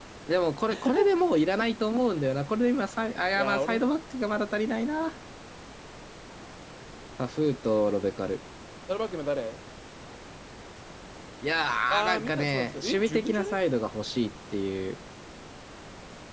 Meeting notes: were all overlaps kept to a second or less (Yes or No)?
No